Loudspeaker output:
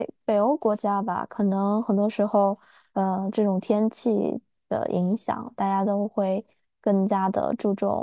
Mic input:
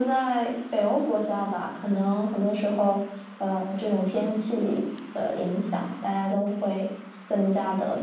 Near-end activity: none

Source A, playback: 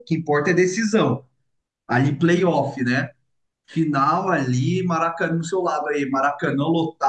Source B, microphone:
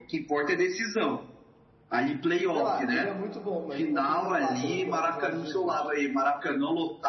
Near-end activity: present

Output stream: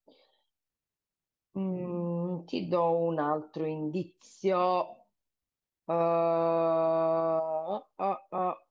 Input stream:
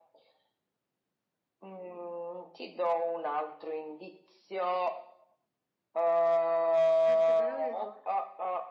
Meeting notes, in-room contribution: present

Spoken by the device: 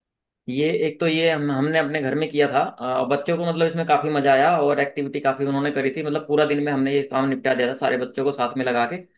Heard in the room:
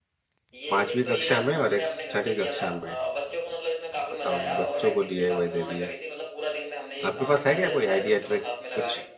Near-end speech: present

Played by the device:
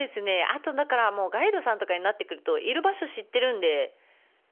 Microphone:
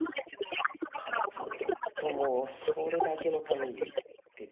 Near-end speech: present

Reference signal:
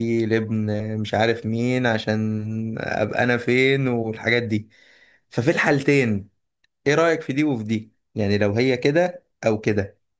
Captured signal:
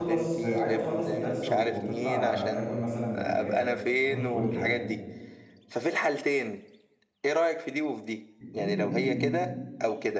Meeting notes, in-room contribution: present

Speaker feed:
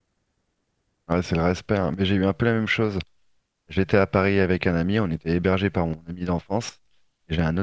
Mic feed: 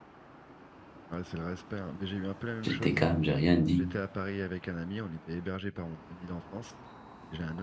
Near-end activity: present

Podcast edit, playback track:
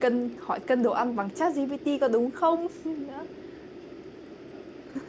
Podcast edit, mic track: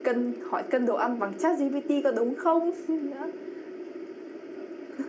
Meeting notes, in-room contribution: none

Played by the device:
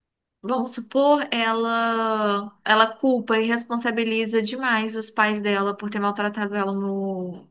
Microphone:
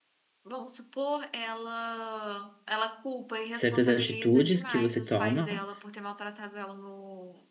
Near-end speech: present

